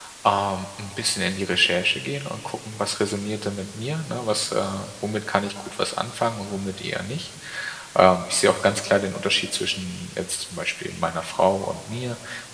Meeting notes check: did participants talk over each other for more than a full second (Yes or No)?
No